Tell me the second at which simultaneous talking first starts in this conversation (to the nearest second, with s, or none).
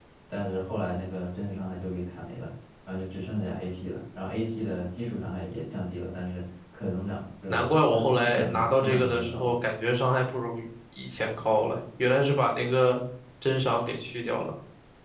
8 s